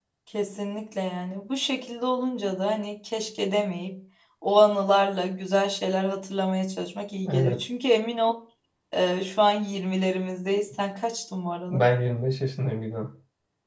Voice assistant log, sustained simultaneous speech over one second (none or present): none